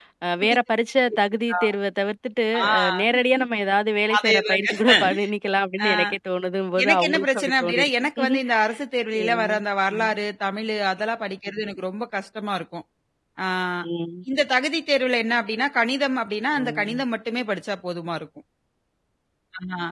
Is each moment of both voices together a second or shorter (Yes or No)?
No